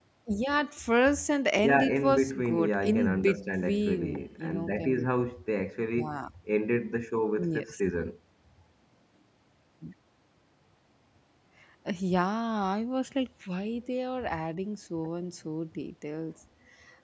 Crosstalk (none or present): present